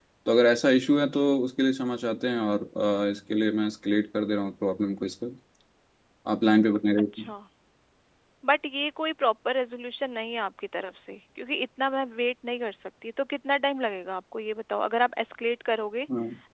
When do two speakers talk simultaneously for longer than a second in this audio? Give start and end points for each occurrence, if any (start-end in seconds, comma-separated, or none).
none